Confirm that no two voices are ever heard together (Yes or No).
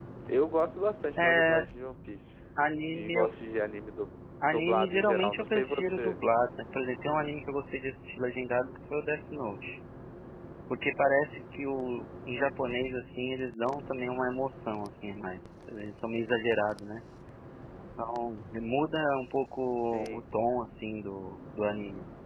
No